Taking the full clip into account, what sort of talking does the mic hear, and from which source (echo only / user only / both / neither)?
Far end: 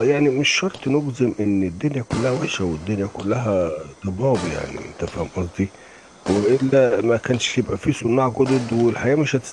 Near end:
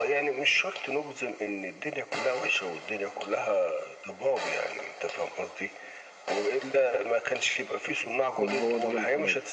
both